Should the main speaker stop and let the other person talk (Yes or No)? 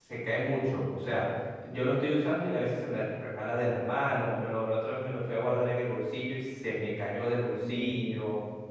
Yes